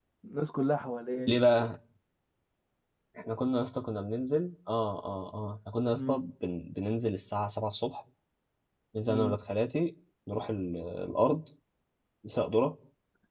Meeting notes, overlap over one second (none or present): none